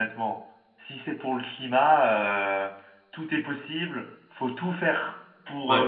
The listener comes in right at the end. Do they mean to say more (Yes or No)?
No